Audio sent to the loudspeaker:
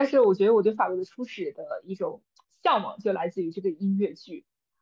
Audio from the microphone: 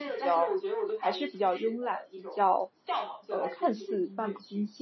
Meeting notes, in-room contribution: present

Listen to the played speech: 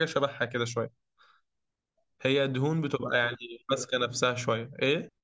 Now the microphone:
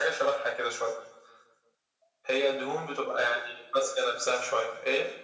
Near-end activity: none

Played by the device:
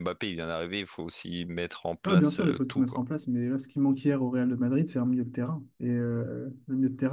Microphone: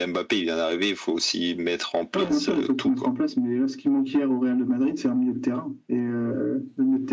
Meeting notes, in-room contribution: none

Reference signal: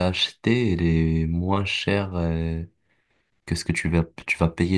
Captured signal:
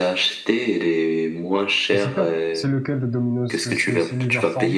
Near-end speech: present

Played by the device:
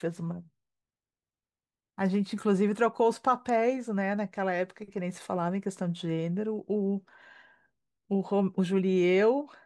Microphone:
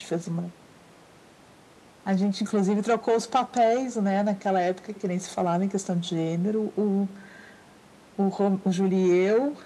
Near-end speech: none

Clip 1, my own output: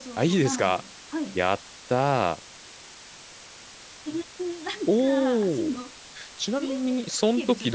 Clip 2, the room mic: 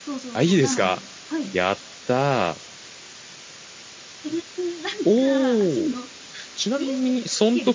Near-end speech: none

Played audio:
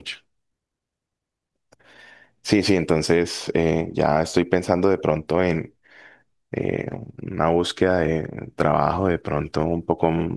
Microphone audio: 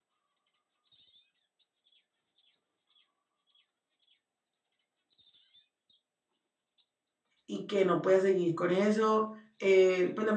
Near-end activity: present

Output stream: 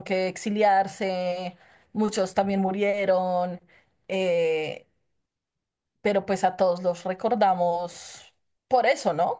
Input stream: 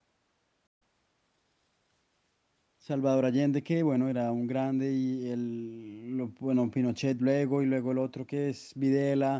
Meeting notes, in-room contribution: present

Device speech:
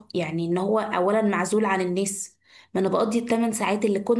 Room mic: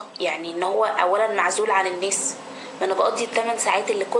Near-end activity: none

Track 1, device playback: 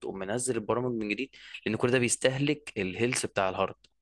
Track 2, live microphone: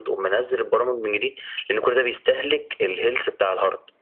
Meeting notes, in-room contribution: none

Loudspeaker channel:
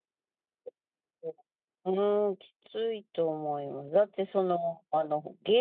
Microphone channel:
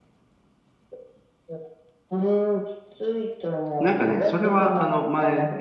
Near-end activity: present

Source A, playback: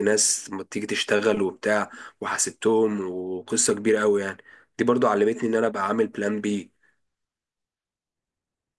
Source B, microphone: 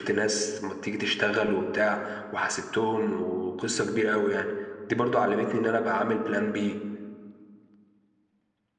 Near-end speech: none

